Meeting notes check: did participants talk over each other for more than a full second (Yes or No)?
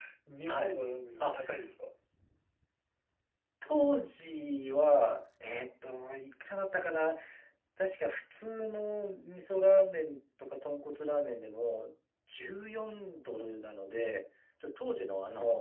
No